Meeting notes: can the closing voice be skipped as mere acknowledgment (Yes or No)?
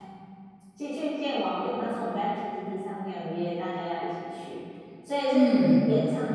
Yes